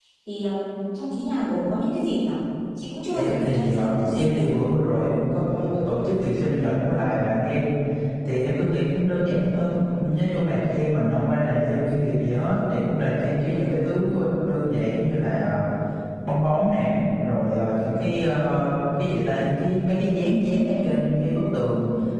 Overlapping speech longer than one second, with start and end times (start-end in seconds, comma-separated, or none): 3.1-4.4